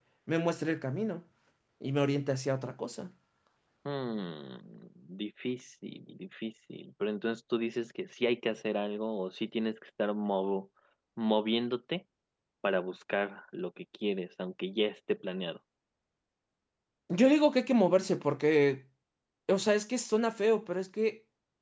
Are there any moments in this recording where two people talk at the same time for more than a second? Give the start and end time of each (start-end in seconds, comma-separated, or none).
none